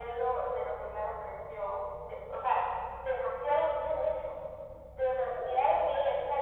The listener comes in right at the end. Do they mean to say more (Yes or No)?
No